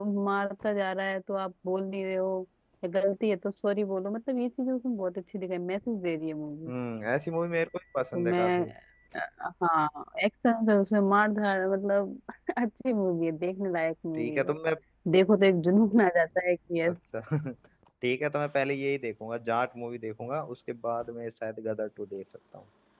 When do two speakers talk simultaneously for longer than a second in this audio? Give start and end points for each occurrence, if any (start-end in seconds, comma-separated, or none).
none